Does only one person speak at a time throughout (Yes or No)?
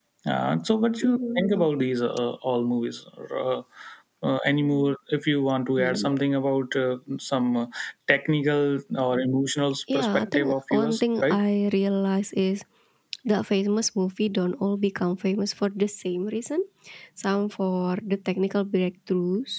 No